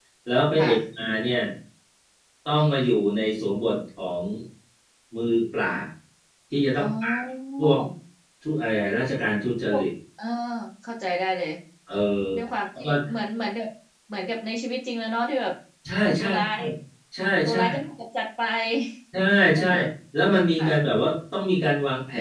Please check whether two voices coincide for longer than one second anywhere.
No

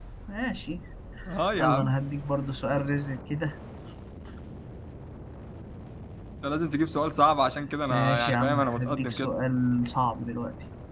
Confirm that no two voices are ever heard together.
No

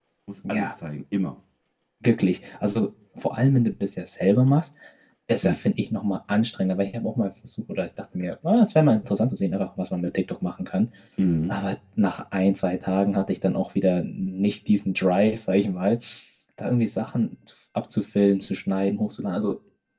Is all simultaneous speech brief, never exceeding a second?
Yes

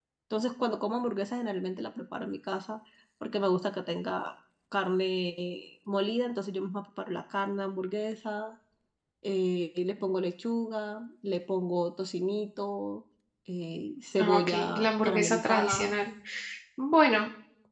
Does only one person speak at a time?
No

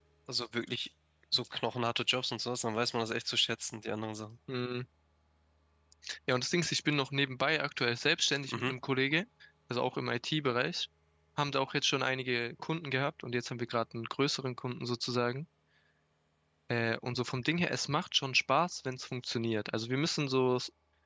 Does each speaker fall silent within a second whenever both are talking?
Yes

